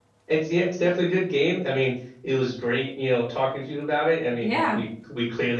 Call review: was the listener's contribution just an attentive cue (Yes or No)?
Yes